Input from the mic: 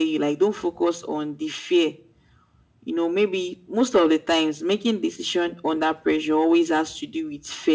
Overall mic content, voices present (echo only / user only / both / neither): echo only